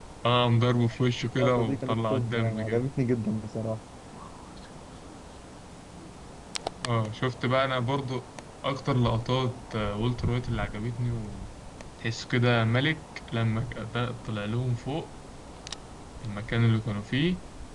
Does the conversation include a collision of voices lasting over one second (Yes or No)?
Yes